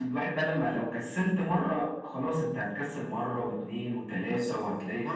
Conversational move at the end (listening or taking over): taking over